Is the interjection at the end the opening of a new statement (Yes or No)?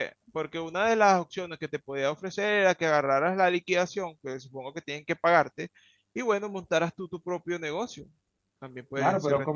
Yes